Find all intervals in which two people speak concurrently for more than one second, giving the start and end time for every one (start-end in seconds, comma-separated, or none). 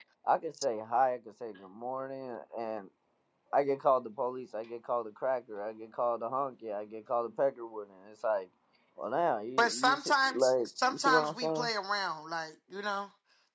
9.6-11.7